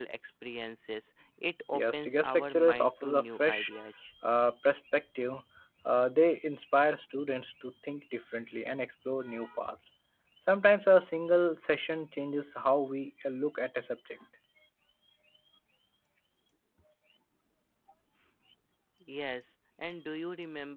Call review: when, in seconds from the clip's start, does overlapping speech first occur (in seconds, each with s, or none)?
1.7 s